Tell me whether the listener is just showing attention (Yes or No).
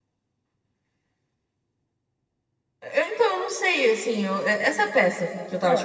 No